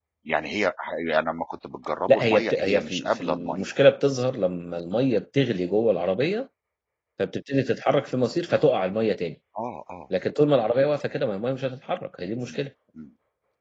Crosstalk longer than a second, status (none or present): present